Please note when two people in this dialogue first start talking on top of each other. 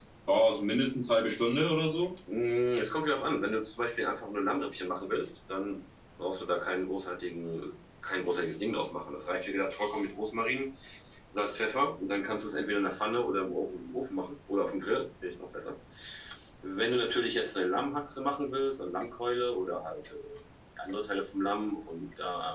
none

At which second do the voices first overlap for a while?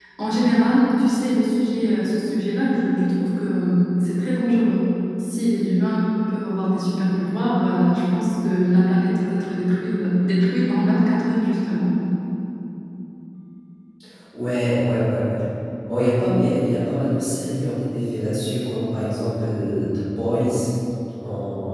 none

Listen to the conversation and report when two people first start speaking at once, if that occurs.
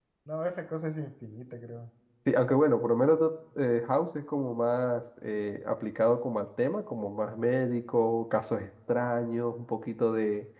none

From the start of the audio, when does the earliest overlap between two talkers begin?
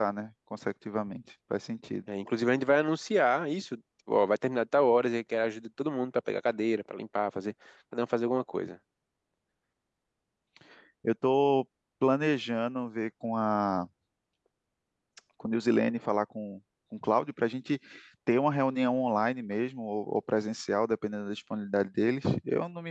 none

